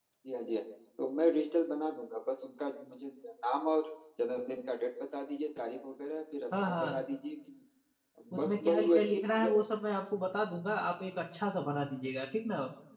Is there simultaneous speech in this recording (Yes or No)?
Yes